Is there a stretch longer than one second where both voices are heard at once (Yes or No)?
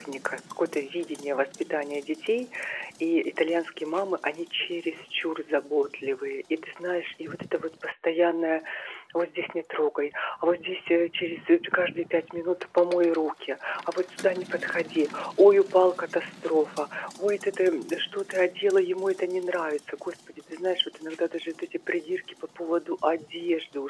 No